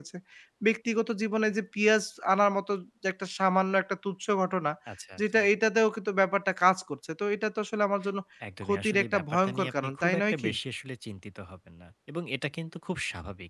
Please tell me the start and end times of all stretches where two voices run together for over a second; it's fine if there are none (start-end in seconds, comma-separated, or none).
8.6-10.5